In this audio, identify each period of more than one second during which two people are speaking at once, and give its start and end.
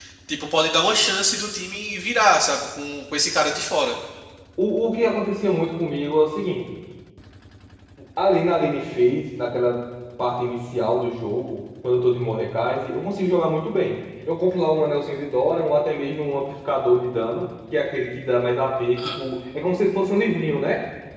none

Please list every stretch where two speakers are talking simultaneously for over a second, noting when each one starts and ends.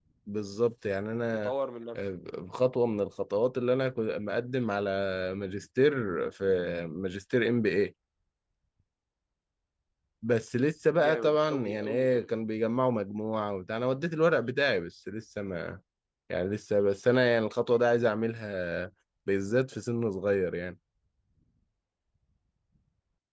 11.0-12.3

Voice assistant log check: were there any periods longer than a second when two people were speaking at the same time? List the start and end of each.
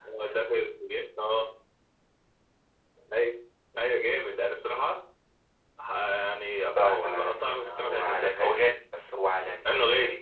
6.8-8.5

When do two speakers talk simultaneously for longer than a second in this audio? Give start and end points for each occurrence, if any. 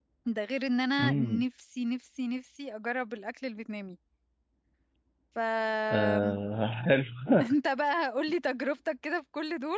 none

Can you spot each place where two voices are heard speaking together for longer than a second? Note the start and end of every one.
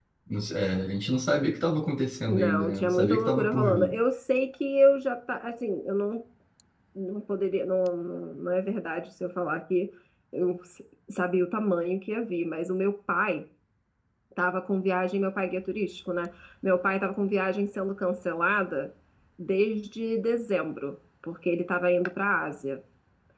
2.3-3.9

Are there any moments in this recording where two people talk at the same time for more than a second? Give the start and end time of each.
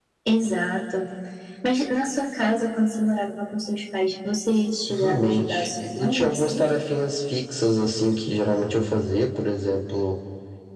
4.9-6.6

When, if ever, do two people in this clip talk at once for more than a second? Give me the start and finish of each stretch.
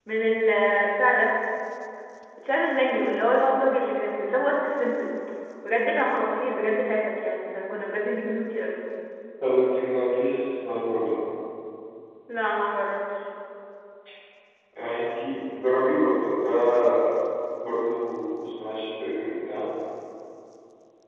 none

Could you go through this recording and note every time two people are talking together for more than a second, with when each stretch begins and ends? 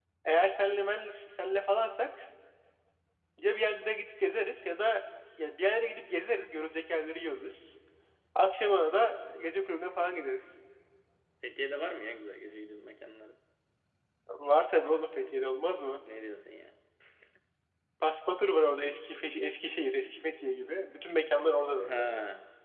none

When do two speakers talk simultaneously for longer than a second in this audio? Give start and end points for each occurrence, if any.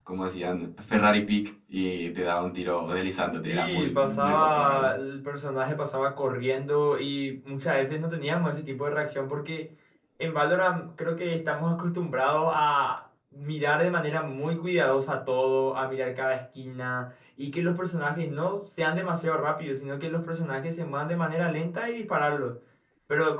3.4-4.9

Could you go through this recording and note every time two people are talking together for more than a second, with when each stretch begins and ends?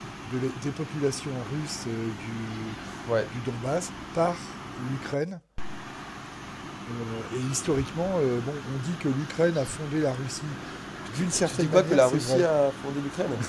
11.1-12.5

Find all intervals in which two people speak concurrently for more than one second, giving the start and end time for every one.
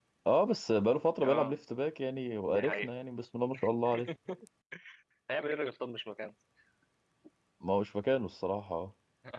none

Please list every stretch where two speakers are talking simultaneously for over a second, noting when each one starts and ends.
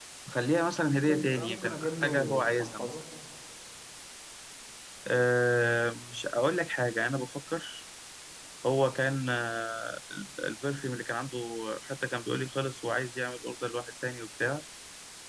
0.9-3.0

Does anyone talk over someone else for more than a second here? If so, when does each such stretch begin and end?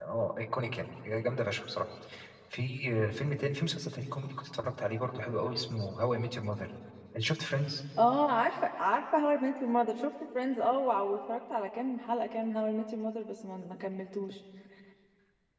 none

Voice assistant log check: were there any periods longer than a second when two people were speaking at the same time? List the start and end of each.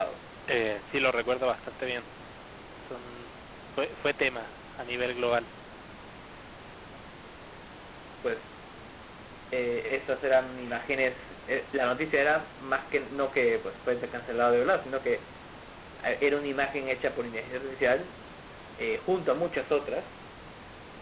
none

